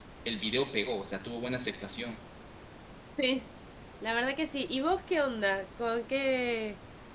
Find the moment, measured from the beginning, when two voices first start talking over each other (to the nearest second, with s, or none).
none